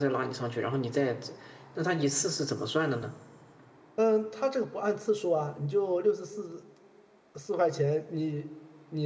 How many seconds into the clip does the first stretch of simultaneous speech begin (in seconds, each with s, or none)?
none